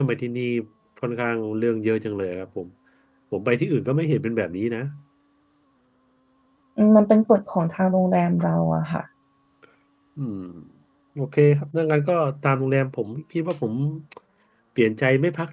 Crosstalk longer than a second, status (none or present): none